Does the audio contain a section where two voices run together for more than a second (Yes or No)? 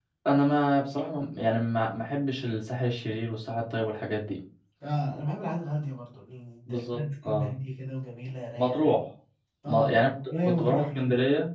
Yes